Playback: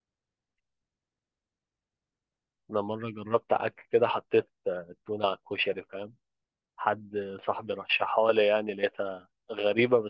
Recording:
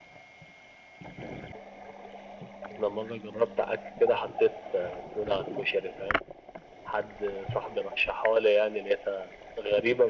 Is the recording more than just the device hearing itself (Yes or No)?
No